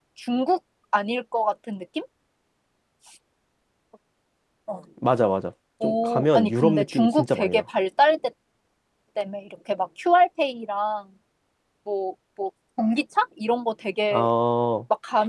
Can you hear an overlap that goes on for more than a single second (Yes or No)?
Yes